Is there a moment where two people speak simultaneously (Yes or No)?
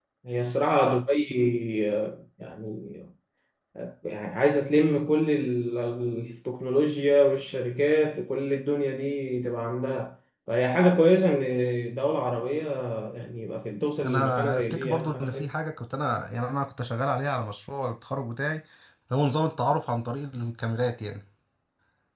Yes